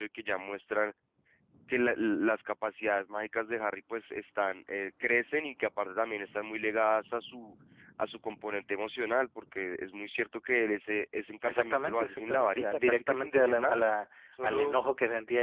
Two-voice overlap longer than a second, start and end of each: 11.4-13.8

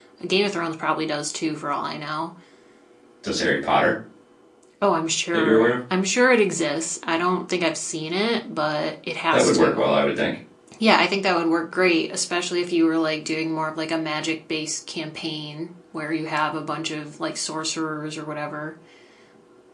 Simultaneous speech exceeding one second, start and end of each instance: none

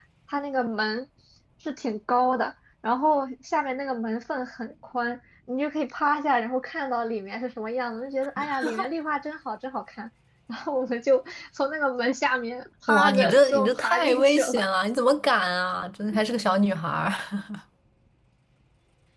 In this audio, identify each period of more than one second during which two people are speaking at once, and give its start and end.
12.9-14.6

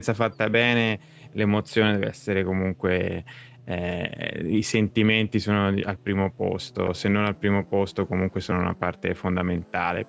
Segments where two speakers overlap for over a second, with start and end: none

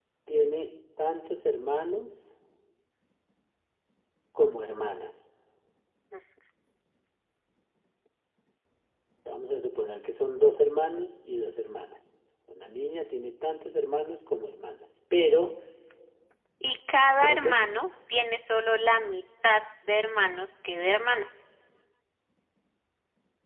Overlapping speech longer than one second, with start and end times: none

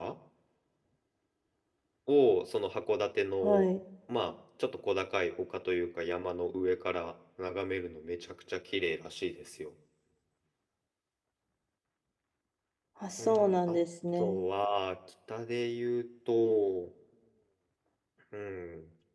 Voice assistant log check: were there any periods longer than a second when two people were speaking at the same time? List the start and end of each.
none

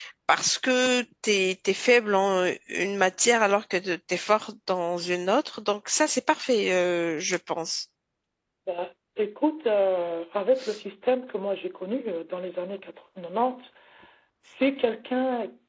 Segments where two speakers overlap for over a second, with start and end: none

